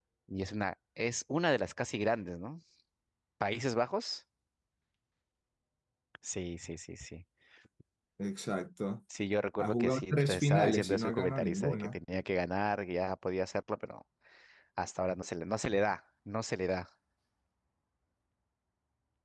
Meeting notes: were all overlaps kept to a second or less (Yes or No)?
No